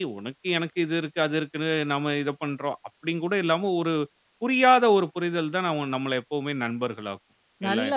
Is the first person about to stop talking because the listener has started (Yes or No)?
Yes